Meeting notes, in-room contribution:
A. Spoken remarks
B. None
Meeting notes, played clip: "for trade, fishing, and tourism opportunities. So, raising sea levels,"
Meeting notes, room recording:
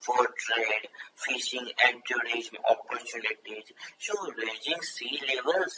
B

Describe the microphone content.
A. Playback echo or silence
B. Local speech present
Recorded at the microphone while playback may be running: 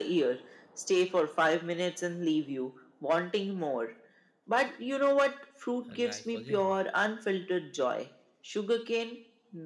B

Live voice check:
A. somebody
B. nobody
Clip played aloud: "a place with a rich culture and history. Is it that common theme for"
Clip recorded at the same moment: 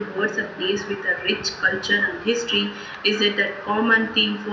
B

